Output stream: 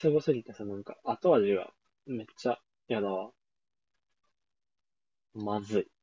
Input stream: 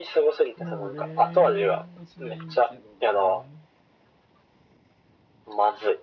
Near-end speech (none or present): present